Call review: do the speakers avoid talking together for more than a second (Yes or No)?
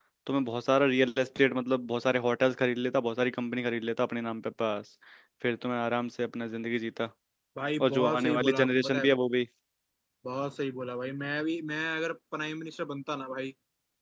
No